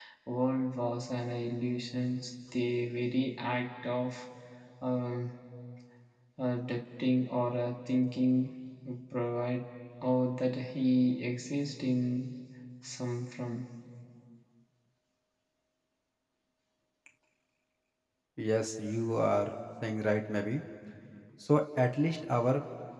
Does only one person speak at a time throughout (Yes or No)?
Yes